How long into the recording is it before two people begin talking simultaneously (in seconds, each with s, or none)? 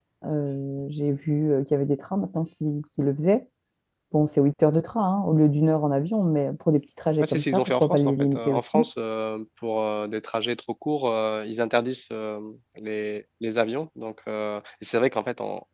7.2 s